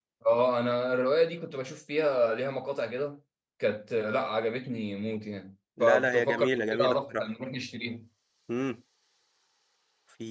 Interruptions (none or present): present